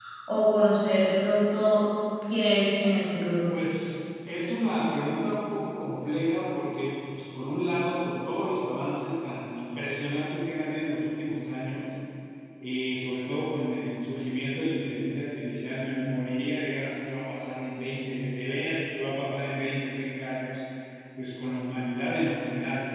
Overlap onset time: none

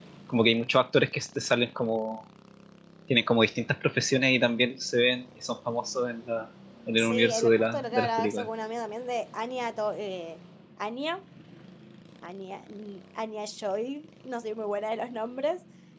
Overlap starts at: 7.0 s

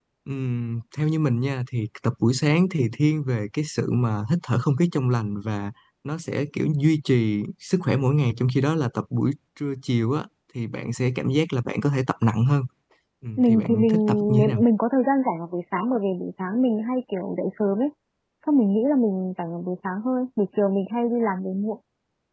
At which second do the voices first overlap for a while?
13.4 s

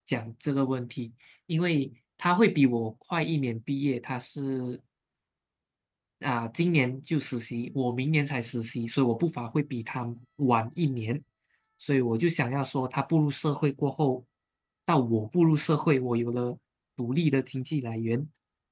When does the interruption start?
none

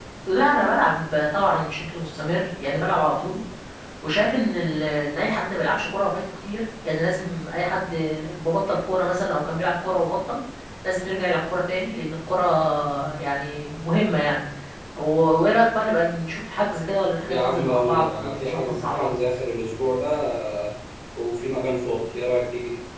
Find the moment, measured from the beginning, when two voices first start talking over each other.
17.3 s

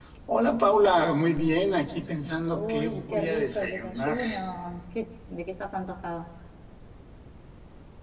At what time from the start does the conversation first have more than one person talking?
2.5 s

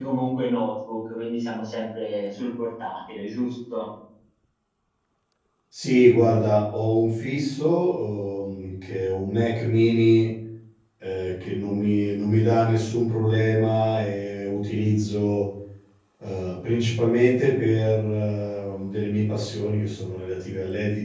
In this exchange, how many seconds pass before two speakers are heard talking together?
none

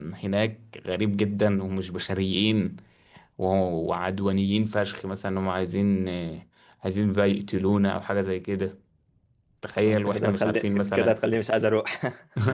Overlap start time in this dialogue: 9.8 s

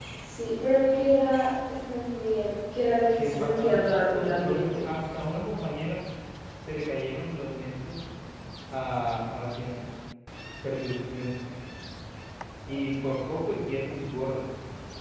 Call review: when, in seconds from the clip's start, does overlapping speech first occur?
3.2 s

